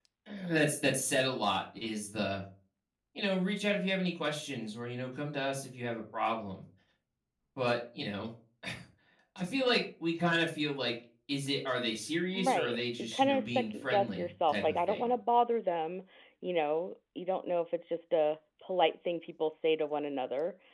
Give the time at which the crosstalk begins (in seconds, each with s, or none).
12.4 s